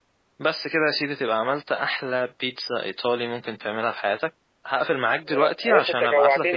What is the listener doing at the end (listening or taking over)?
taking over